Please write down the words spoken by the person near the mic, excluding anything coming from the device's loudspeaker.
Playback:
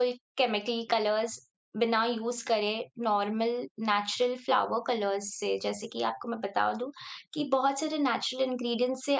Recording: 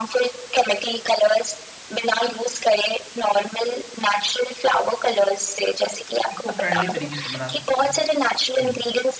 एक इको फ्रेंडली तरीके से बना सकते हैं। हुँ,

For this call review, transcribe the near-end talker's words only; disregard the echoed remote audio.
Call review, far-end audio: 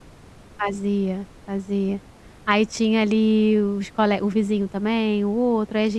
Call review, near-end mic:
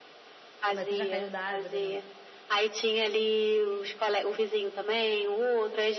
Mas você já caiu da árvore, não?

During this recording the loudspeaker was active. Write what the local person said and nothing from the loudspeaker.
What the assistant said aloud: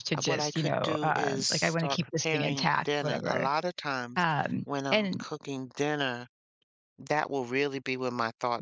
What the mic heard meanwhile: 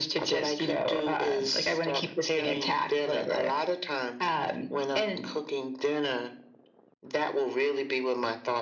none

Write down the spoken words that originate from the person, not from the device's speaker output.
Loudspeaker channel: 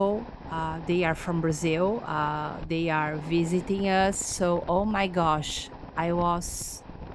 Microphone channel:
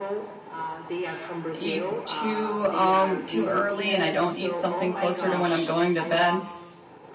eat too um too early and I don't eat something closer to when I'm going to bed,

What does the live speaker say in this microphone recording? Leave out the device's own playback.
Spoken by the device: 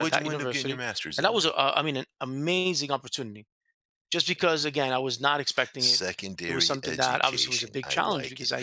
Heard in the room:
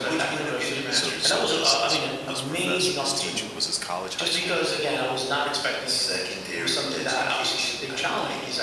So so this this this professor, this teacher was this college, high school?

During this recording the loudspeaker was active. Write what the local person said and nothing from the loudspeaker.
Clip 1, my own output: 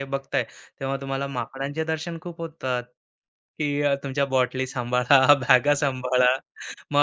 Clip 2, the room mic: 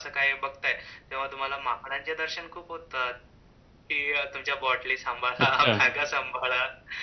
अच्छा.

